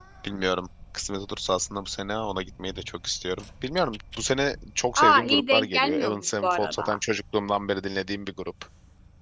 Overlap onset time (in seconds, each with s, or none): 5.0 s